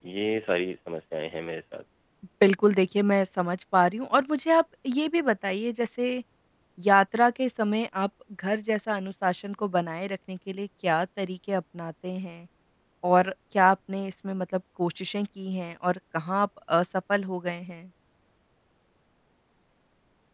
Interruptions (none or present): none